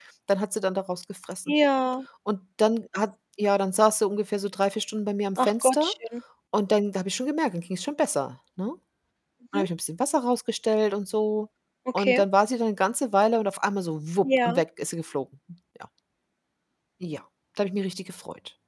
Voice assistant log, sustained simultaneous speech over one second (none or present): none